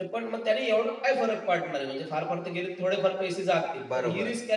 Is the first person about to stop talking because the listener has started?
No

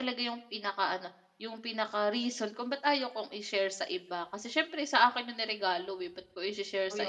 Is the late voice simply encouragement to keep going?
No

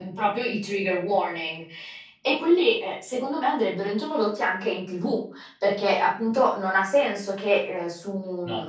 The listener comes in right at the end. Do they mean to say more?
No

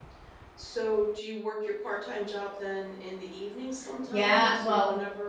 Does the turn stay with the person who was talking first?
No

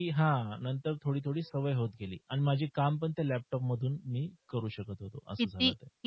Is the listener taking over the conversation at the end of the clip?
Yes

